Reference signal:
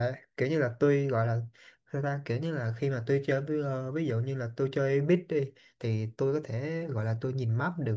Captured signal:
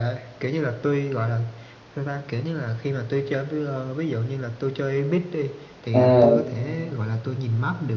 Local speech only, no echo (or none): à,